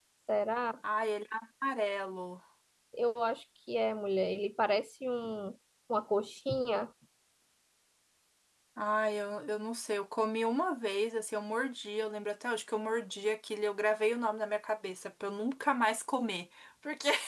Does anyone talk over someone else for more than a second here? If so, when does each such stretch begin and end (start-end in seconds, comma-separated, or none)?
none